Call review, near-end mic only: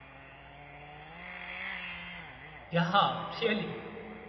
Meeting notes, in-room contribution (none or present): present